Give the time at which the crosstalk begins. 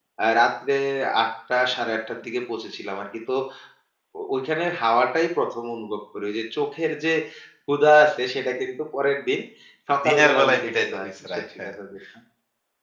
10.0 s

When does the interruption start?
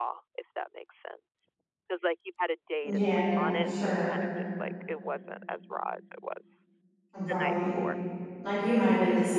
2.8 s

